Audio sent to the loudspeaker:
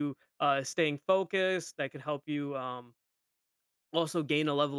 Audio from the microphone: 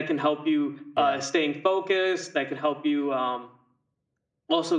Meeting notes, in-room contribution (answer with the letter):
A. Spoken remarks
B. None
A